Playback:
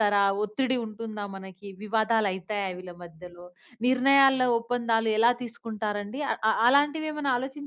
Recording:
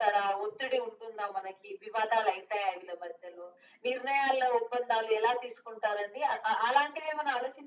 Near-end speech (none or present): none